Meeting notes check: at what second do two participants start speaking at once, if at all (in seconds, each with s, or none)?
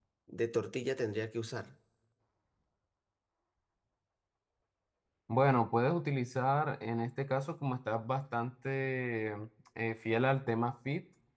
none